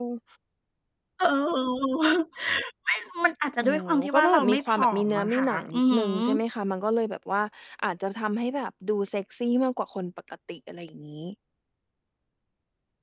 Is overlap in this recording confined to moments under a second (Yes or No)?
No